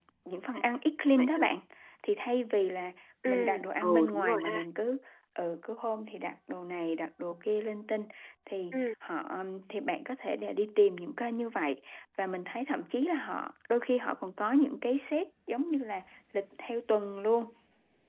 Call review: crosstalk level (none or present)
present